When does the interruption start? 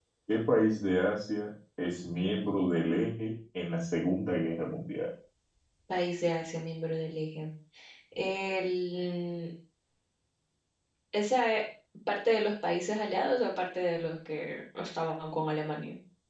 none

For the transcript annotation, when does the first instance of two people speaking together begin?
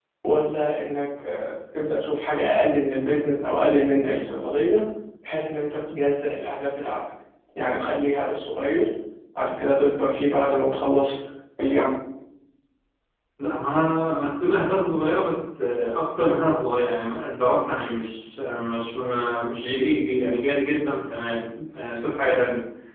none

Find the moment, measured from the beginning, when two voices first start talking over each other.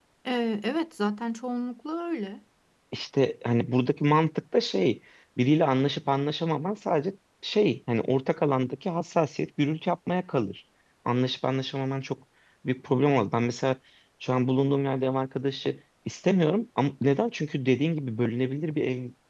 none

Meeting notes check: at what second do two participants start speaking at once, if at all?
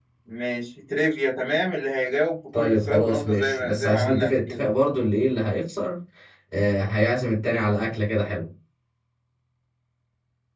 2.5 s

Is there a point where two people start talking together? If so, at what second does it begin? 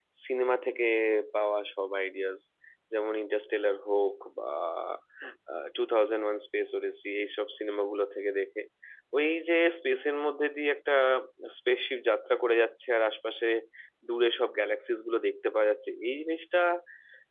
none

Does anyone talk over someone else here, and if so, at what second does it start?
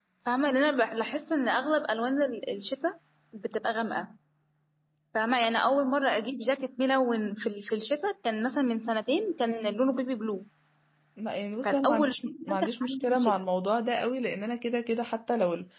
11.6 s

